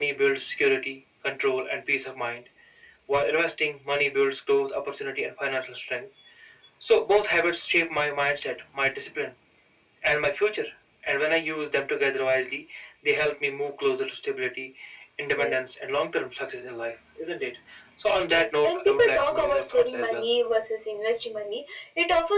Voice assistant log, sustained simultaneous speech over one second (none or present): present